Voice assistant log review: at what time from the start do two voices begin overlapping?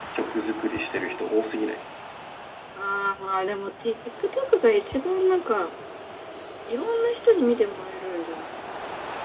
none

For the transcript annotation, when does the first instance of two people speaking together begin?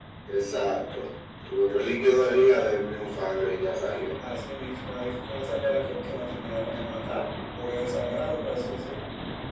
none

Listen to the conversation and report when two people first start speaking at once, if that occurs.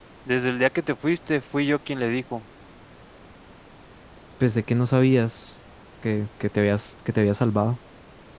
none

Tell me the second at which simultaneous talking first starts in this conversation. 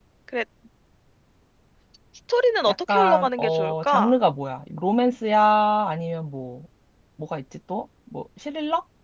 2.7 s

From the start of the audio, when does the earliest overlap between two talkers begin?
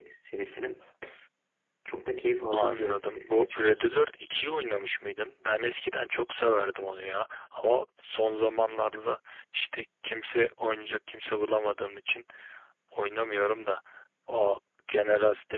2.5 s

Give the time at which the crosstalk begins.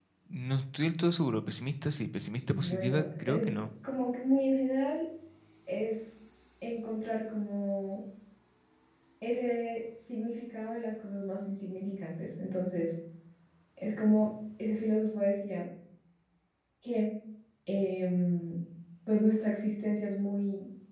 2.4 s

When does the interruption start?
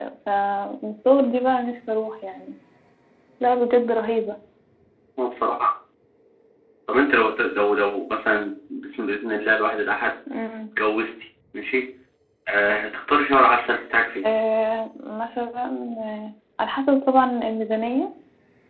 none

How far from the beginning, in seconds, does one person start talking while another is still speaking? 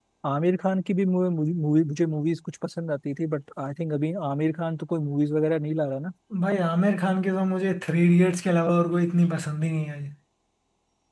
none

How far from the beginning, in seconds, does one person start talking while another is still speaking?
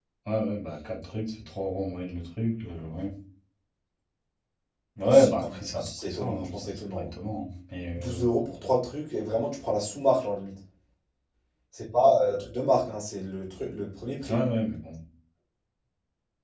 5.0 s

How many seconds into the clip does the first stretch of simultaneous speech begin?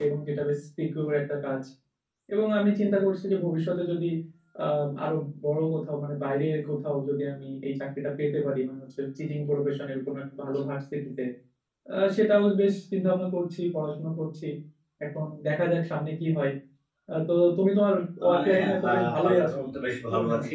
18.2 s

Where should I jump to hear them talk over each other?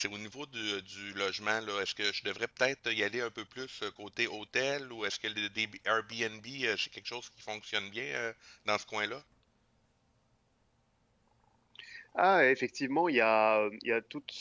none

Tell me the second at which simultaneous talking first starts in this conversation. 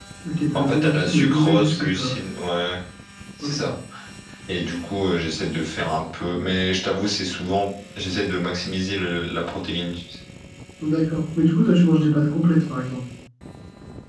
0.5 s

